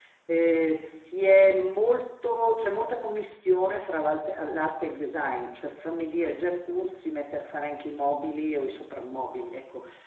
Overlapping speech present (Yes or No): No